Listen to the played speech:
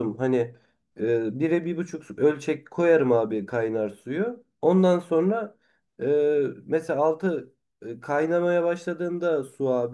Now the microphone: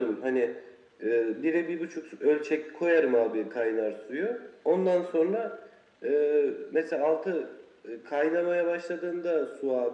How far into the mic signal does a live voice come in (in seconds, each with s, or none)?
none